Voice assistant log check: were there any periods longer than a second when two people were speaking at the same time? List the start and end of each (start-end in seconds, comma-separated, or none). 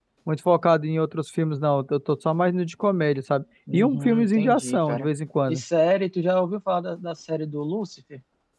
3.7-5.1